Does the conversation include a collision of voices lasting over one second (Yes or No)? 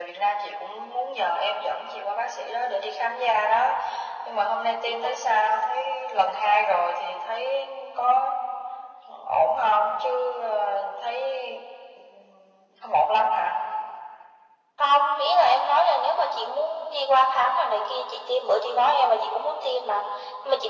No